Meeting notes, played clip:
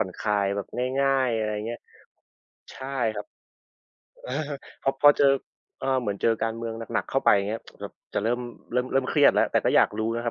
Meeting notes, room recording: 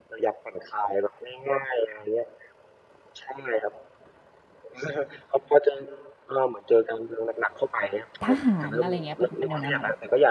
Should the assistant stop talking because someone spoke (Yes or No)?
Yes